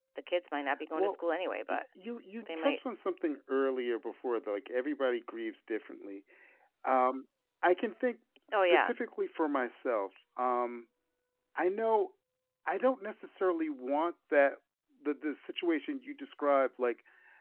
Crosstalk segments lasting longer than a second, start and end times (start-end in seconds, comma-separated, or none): none